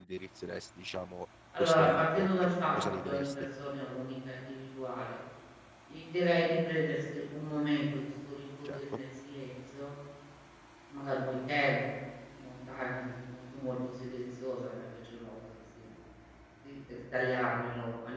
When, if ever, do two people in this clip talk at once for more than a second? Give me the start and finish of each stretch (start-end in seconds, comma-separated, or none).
1.6-3.3